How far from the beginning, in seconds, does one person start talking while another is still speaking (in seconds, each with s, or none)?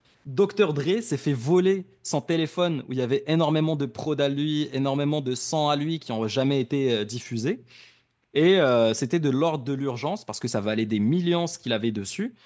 none